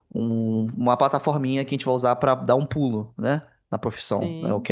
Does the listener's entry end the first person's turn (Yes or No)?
No